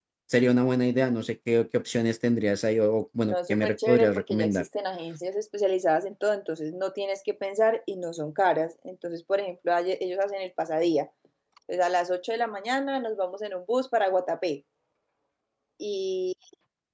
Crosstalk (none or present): present